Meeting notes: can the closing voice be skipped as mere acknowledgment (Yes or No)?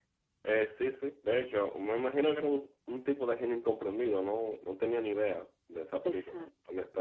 No